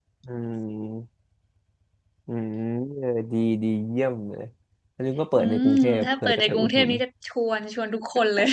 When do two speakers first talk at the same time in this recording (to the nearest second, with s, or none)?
5 s